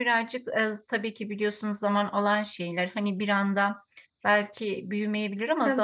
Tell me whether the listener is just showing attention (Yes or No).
Yes